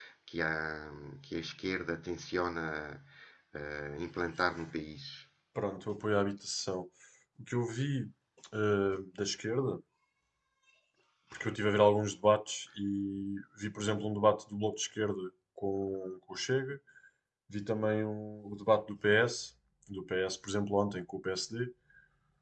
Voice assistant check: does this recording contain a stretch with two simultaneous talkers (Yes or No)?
No